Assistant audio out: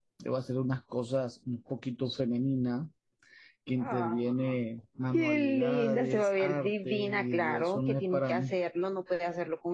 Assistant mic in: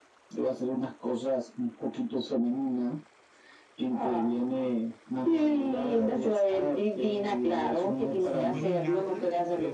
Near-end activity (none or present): present